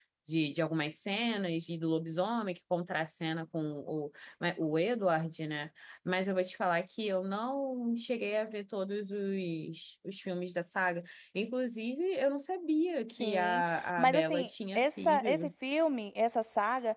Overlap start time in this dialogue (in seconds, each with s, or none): 13.2 s